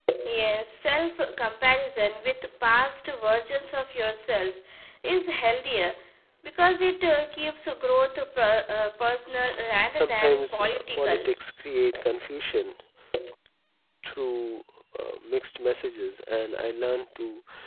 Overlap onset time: 9.9 s

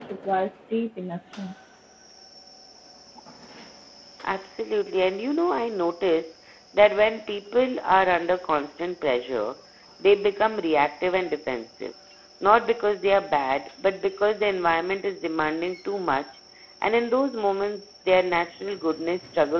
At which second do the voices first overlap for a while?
none

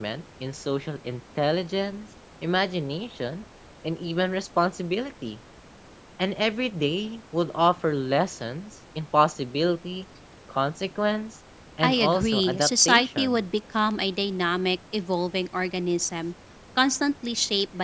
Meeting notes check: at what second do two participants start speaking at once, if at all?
11.8 s

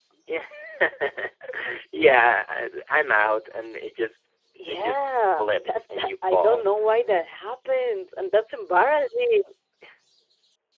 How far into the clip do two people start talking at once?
4.7 s

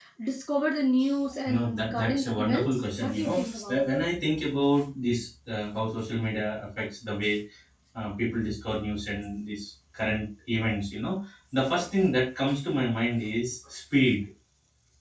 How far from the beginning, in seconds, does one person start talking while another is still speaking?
1.5 s

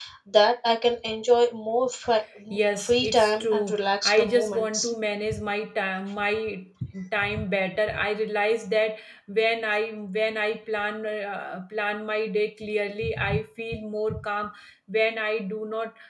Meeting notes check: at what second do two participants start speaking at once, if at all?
2.8 s

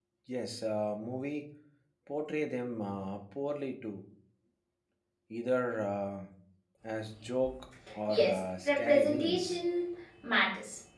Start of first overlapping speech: 8.1 s

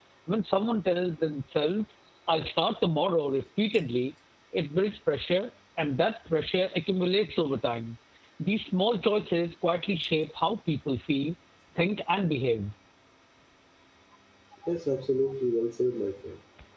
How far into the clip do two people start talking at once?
none

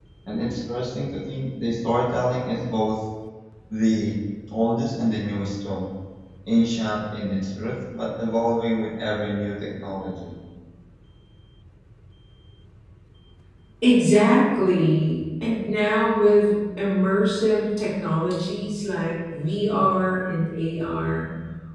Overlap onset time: none

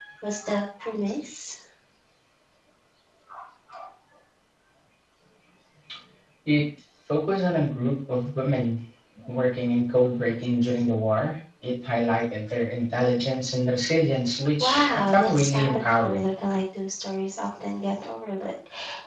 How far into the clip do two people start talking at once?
14.6 s

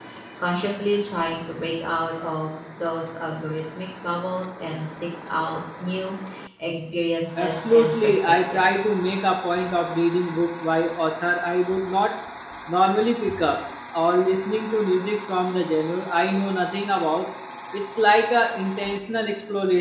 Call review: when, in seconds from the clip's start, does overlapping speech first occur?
7.4 s

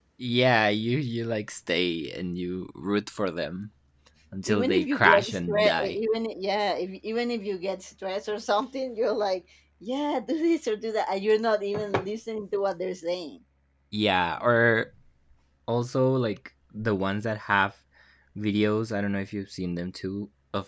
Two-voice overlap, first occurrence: 4.5 s

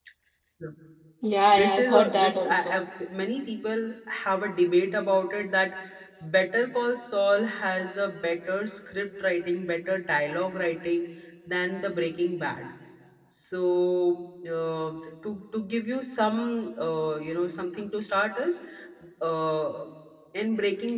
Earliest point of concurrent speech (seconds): 1.5 s

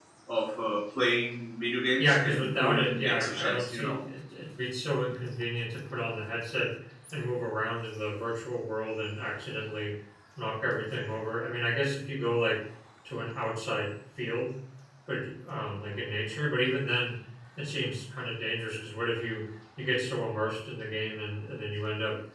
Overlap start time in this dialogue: 2.0 s

